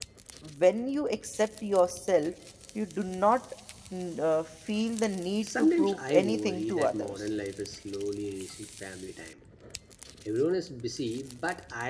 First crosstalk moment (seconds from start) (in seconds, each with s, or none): 5.4 s